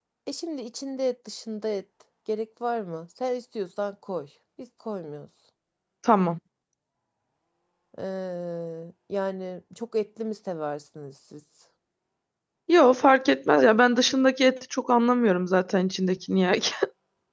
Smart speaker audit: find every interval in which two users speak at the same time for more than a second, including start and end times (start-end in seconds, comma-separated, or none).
none